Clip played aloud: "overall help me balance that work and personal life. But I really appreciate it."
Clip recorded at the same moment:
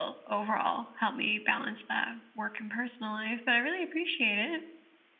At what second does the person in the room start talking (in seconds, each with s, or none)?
none